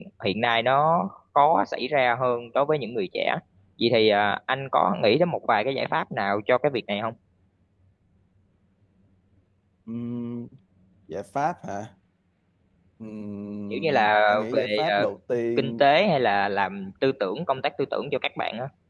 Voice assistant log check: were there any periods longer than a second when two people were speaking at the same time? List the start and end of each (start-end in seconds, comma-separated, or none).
13.7-15.0